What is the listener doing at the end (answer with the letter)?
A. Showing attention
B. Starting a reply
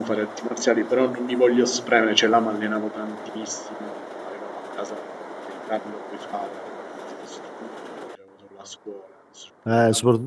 B